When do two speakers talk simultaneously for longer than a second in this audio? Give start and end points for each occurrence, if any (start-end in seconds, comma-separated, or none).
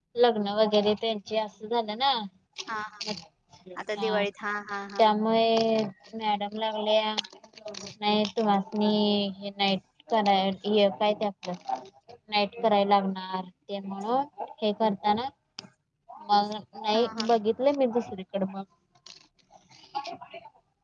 none